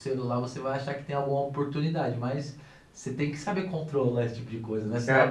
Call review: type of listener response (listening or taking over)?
taking over